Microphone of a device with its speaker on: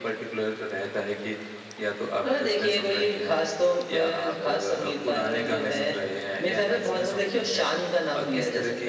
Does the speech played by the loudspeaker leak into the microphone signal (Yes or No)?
Yes